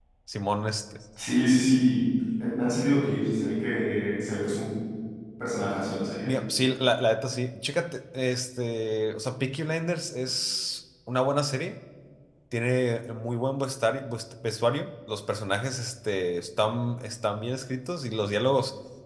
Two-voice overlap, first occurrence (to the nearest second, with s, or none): none